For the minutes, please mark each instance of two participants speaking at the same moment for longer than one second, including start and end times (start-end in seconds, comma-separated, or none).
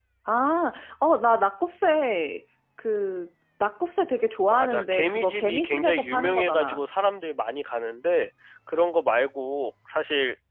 4.5-6.8